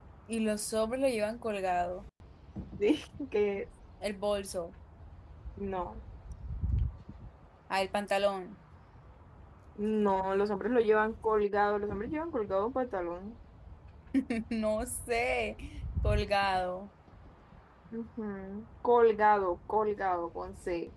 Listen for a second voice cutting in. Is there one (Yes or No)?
No